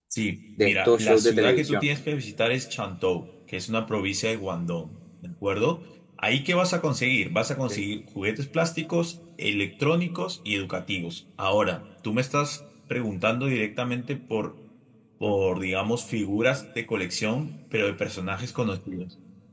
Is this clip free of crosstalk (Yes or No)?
No